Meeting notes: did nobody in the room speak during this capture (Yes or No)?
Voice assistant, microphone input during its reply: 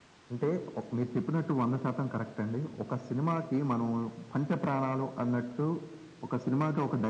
Yes